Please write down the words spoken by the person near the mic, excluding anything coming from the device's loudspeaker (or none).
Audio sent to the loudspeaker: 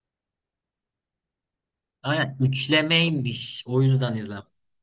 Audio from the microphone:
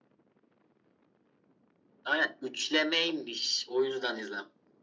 none